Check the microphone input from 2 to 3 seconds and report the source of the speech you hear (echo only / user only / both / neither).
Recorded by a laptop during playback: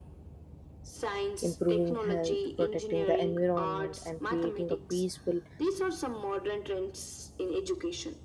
both